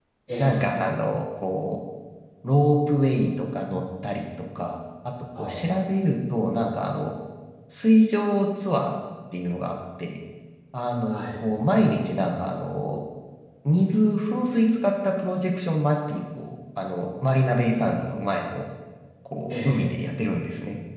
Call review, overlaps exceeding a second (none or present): none